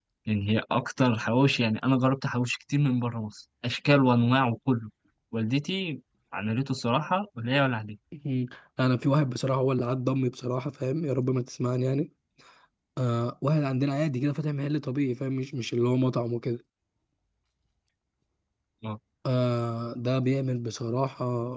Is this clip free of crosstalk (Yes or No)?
Yes